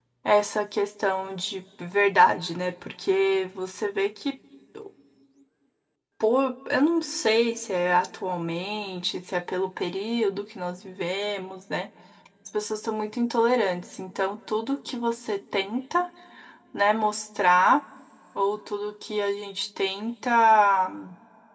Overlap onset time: none

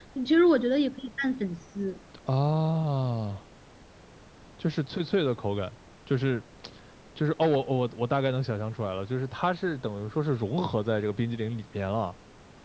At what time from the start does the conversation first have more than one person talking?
none

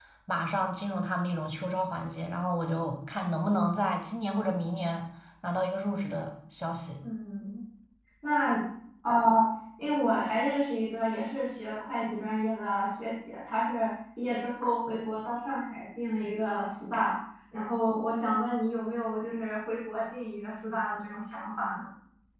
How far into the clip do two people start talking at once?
none

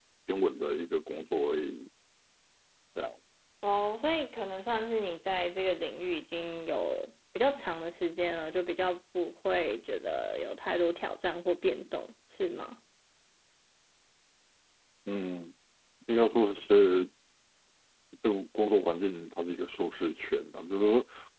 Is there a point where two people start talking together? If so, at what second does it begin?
none

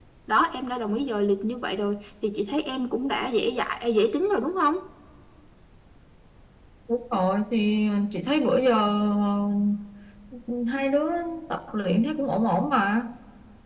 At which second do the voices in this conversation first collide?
none

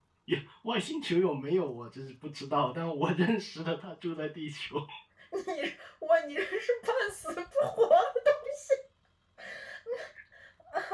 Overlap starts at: none

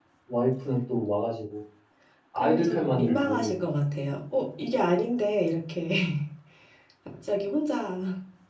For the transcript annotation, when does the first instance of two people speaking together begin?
2.4 s

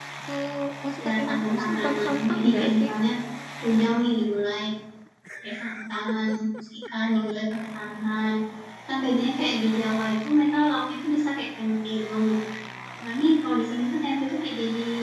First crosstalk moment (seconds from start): 1.0 s

